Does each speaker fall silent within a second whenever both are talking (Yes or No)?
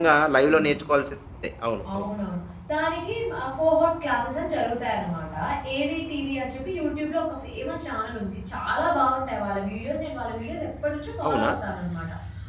Yes